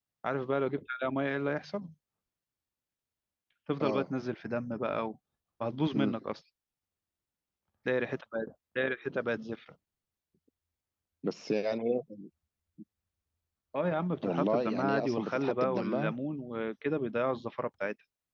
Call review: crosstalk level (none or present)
present